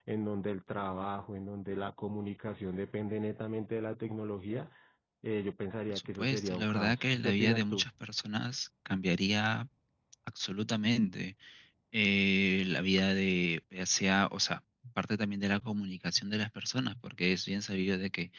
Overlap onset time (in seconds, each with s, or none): 5.9 s